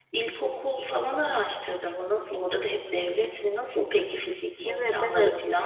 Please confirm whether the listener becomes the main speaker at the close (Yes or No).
Yes